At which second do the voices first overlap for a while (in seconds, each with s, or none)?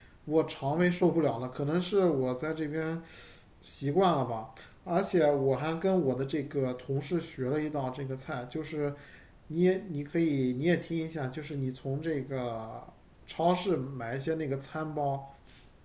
none